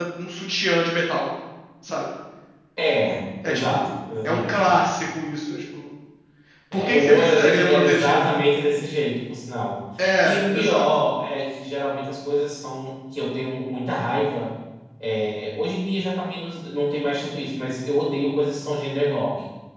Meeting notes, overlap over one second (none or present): present